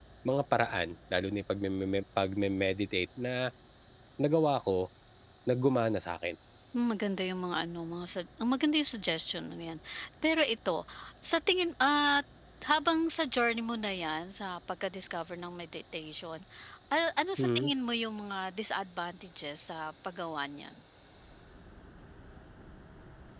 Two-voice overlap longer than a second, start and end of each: none

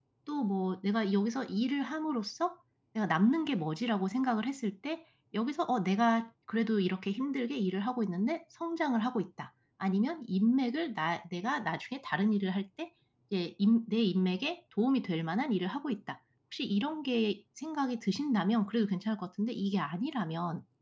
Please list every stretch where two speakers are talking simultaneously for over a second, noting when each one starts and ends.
none

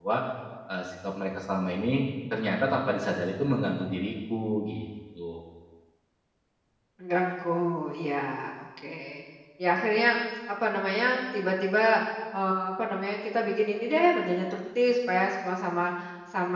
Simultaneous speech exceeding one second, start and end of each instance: none

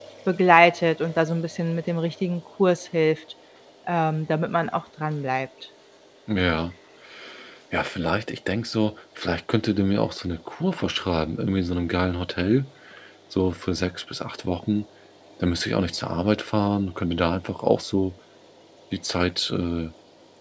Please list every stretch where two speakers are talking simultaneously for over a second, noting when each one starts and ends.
none

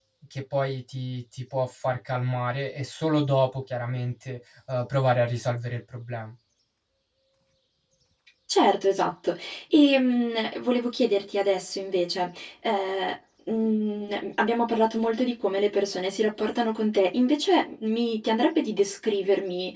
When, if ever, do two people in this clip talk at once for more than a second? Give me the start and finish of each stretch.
none

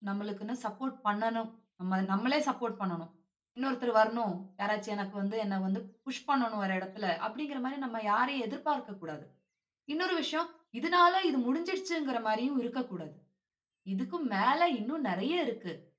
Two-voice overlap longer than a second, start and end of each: none

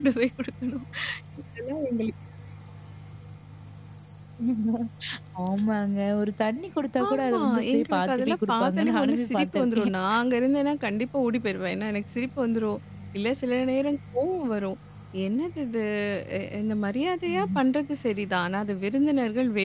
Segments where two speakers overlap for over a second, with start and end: 7.1-9.9

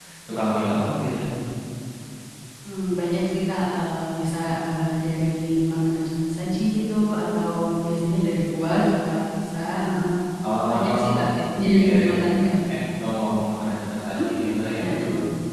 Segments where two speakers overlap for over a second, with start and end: none

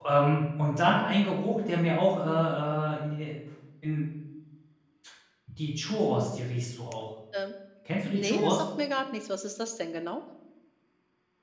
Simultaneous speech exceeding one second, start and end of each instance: none

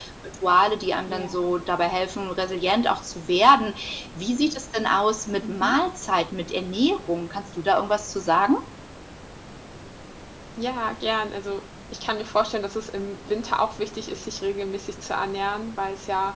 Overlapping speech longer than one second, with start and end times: none

